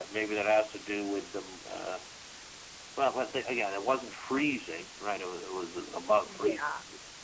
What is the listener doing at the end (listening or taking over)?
listening